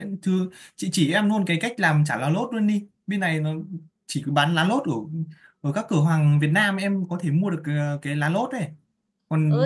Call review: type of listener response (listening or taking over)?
taking over